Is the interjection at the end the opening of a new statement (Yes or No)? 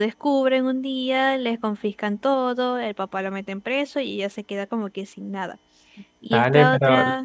Yes